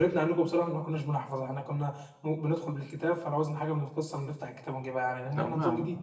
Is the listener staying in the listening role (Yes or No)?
No